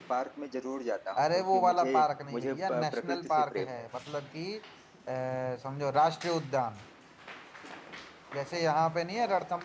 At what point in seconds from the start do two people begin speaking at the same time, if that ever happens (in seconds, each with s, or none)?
1.2 s